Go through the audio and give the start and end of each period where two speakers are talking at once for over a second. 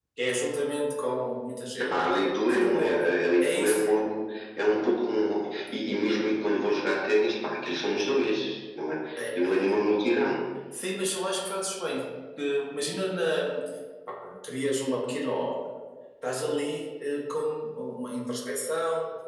2.5-3.9

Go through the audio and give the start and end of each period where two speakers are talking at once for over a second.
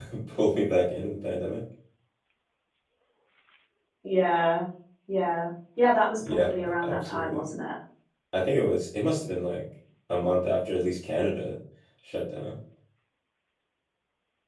6.3-7.5

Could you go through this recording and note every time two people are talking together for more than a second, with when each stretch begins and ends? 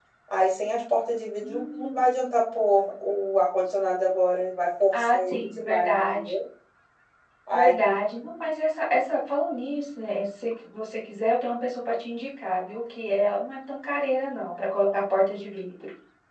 5.0-6.3

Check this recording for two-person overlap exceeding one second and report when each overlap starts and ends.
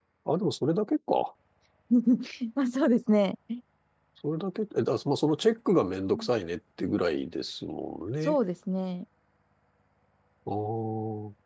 none

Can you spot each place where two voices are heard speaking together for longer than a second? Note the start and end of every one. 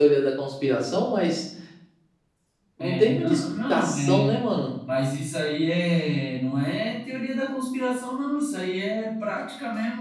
2.8-4.2

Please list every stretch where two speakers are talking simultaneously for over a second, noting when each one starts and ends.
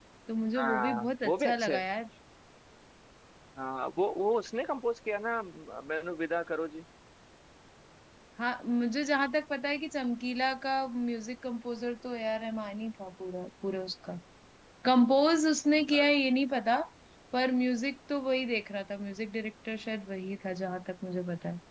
0.6-1.8

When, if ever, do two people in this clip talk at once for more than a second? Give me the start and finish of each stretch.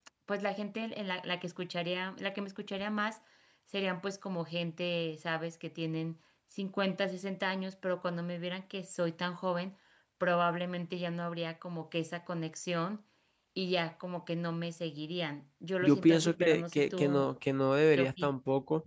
15.8-17.3

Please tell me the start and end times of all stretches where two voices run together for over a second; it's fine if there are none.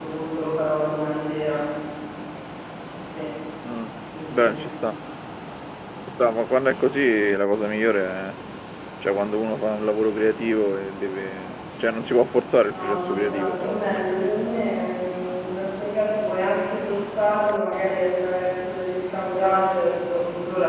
12.7-14.5

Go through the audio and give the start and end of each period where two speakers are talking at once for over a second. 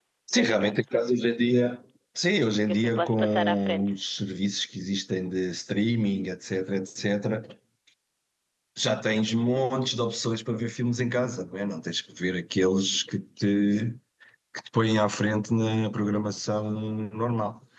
2.7-3.9

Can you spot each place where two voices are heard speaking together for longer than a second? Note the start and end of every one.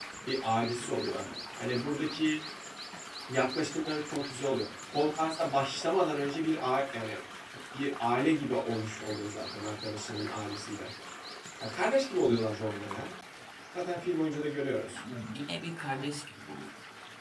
none

